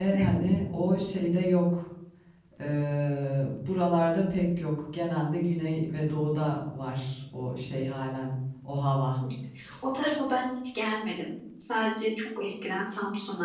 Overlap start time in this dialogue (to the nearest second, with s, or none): none